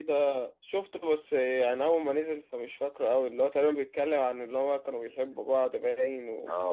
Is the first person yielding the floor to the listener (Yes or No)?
Yes